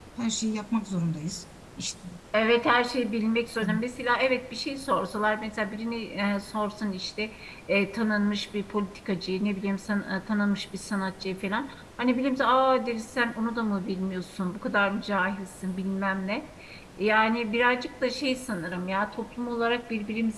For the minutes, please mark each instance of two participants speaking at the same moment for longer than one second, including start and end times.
none

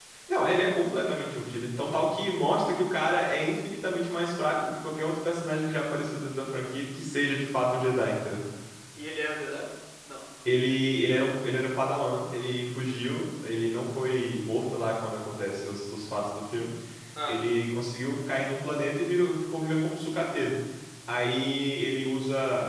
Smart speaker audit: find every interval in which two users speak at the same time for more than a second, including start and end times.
none

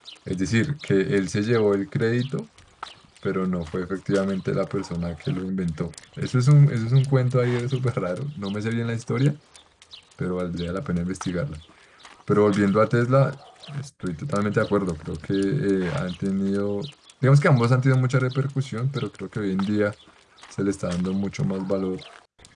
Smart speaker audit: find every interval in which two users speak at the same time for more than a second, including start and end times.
none

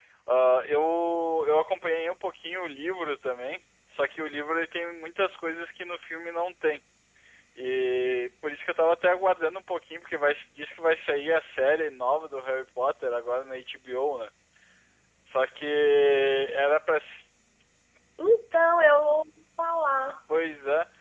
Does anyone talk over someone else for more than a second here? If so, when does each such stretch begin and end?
none

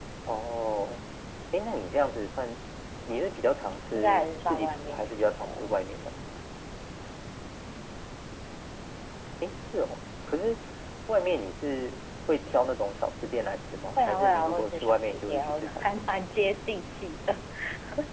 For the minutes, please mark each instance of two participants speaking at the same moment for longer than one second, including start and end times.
3.9-5.8, 14.0-16.0

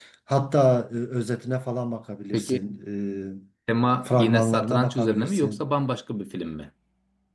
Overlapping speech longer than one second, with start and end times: 4.0-5.6

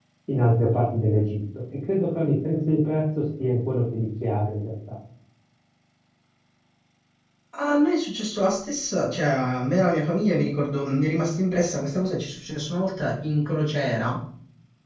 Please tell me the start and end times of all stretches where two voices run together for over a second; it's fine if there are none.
none

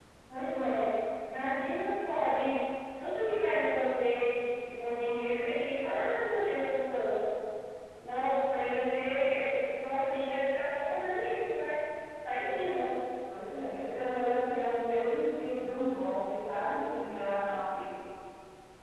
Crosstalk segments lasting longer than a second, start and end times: none

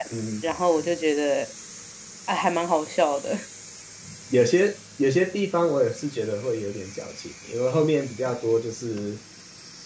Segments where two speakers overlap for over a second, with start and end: none

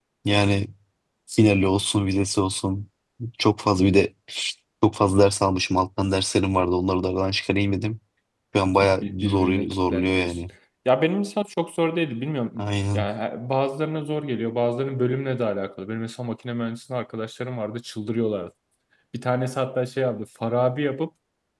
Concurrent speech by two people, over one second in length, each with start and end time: 8.8-10.2

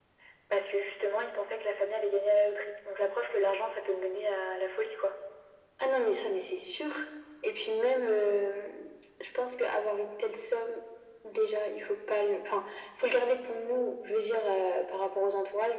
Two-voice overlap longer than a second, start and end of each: none

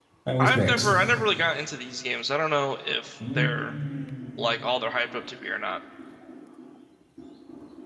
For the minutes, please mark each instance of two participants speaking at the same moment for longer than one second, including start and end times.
none

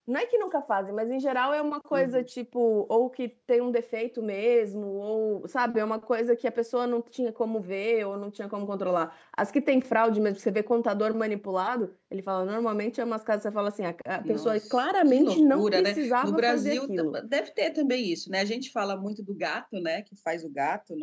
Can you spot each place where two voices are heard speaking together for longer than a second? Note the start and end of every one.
14.2-17.1

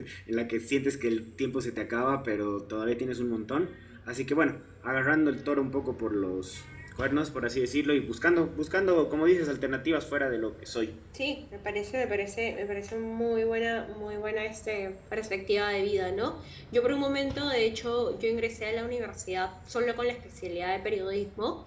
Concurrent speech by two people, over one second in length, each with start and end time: none

